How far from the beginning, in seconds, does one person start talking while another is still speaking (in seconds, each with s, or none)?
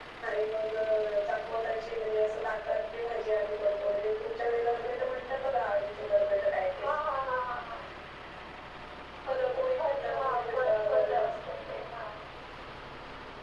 9.8 s